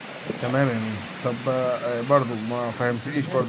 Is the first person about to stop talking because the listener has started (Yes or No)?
No